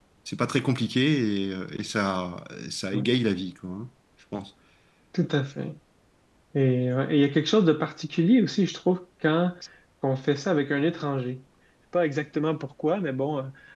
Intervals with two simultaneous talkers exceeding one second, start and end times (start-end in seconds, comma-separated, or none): none